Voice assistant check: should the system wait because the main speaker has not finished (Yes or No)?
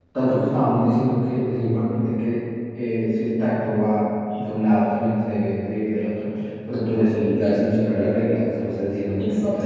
No